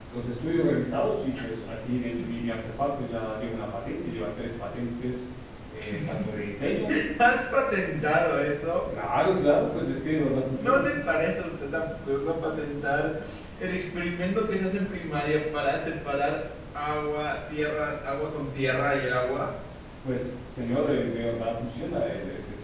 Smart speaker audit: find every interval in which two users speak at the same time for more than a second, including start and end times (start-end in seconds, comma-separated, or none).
none